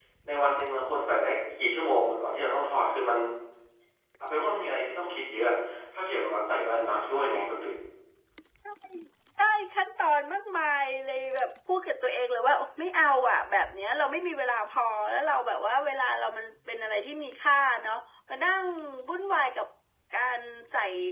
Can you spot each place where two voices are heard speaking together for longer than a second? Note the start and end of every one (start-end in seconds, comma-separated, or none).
none